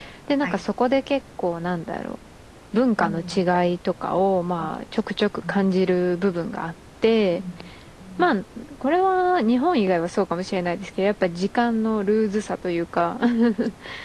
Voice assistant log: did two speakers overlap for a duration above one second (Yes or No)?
No